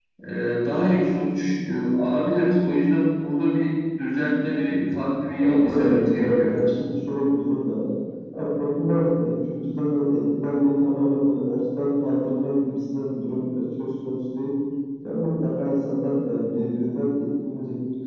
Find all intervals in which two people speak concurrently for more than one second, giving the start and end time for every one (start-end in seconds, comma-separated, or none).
5.4-6.7